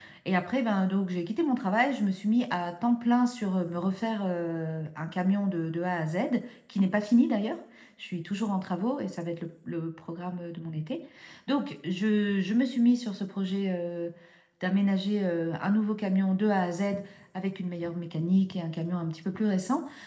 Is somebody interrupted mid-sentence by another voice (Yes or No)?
No